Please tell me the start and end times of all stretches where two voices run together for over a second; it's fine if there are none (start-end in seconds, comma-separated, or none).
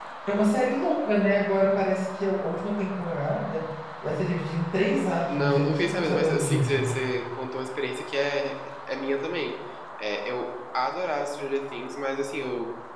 5.3-7.0